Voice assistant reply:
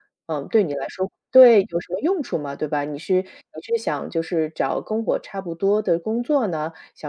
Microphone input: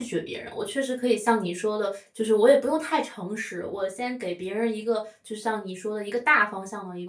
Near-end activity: present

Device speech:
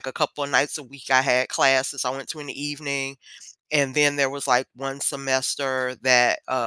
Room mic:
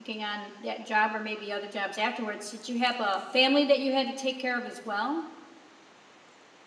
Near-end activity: present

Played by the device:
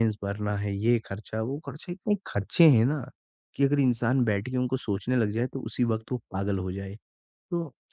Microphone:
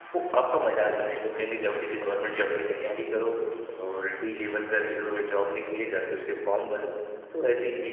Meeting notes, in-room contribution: present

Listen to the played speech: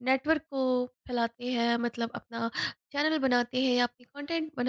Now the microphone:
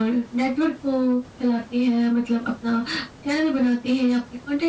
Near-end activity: none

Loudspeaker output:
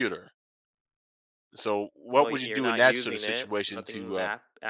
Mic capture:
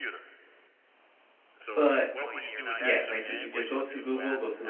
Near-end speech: present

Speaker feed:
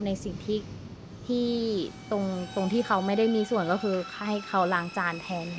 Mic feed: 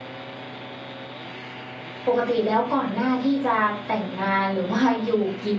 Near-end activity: present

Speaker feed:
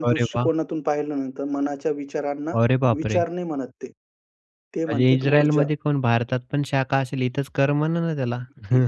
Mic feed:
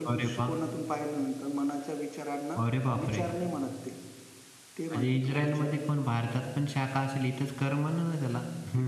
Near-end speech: none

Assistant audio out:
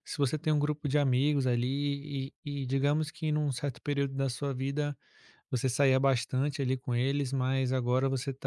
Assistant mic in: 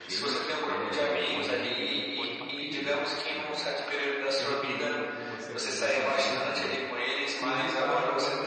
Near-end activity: present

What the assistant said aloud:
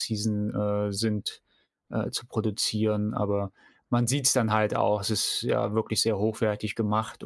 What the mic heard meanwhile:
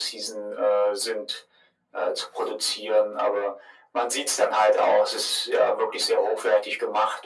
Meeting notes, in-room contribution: none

